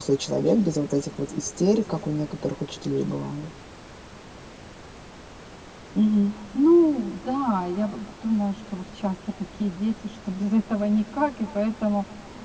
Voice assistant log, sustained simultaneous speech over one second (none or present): none